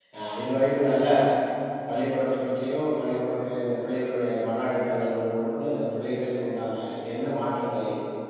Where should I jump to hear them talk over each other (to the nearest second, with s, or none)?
none